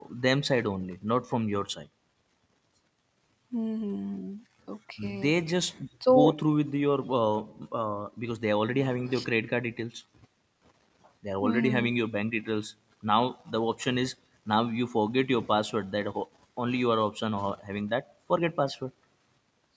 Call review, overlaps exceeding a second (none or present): none